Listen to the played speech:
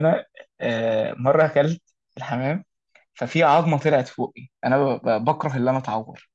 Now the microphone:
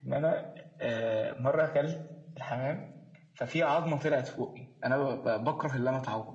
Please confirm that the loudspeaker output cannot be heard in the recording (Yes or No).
No